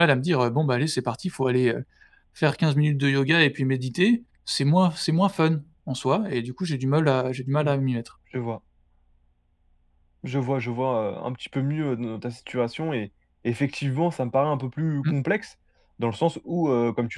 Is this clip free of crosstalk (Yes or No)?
Yes